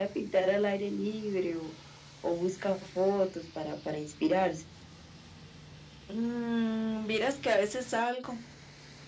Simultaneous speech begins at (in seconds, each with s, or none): none